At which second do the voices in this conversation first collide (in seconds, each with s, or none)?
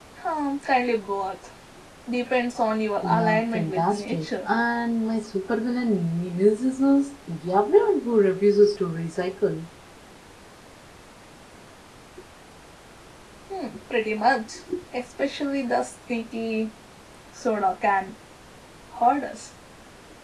3.0 s